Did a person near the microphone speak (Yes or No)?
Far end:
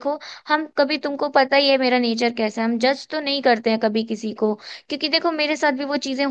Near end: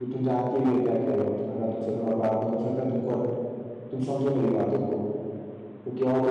Yes